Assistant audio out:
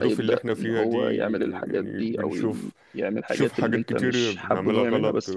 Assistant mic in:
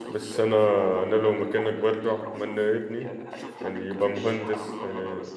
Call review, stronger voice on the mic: user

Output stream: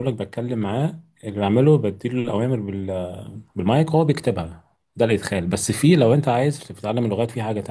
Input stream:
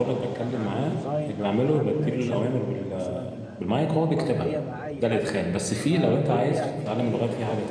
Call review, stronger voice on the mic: echo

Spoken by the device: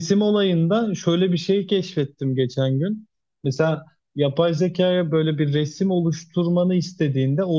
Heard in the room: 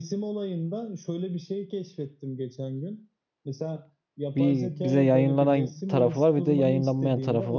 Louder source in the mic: user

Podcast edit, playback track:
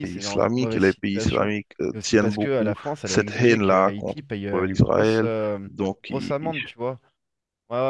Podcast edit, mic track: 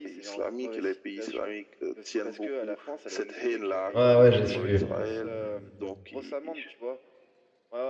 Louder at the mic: user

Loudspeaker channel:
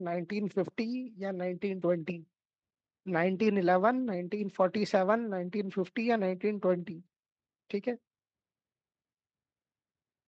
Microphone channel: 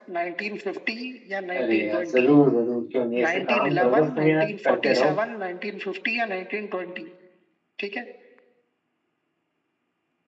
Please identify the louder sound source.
user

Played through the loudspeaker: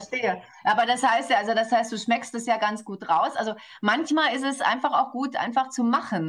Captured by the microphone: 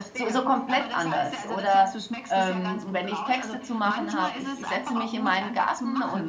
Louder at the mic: user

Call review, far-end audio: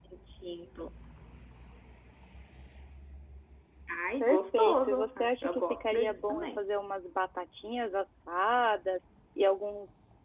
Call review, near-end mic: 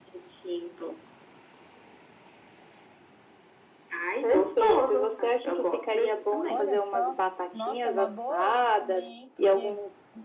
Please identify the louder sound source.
echo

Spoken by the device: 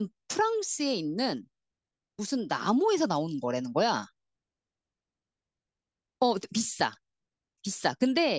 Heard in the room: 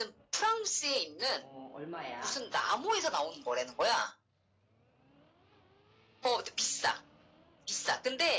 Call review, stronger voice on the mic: echo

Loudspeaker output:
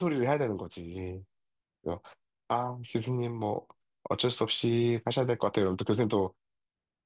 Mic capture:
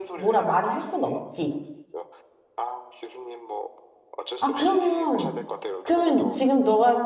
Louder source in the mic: user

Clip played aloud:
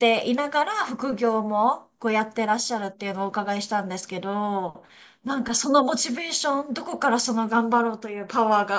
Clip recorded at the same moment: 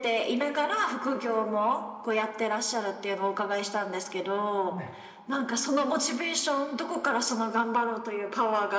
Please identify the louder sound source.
echo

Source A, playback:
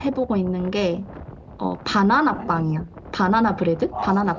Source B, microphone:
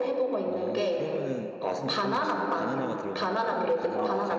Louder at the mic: echo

